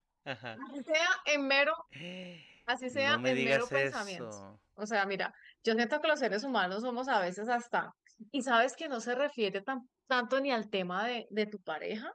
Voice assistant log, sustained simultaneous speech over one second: present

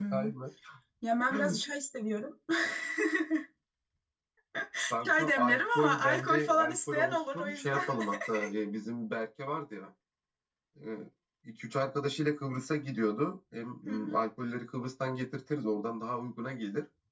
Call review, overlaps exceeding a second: present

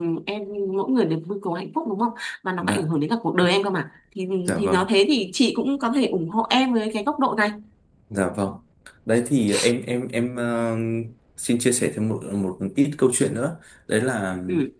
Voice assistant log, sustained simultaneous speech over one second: none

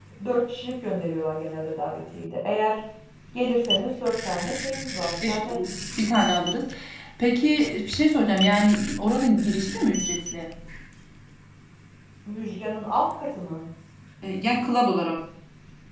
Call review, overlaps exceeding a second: none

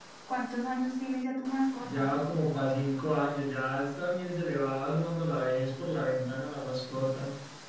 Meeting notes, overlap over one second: none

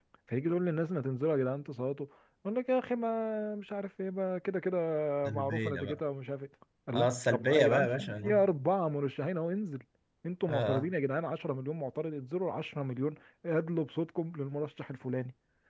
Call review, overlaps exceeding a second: present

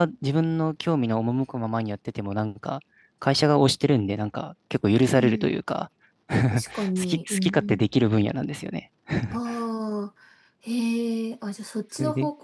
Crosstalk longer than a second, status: present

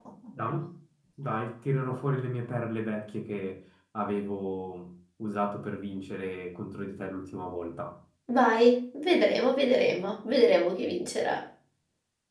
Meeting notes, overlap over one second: none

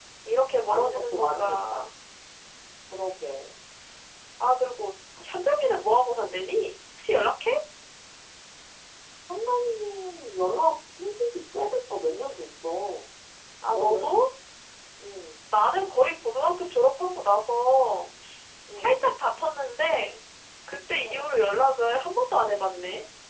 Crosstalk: present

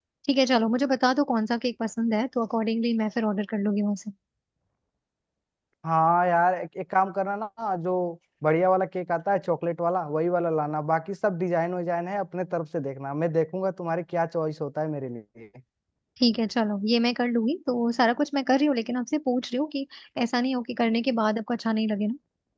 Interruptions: none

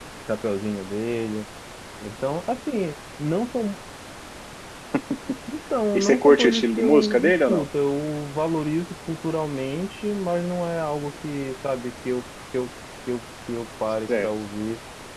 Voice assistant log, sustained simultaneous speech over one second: present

